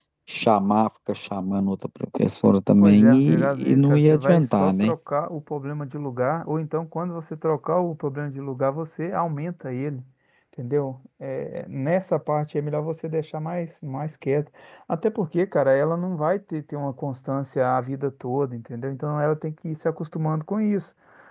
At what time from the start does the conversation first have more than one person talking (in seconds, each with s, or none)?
2.8 s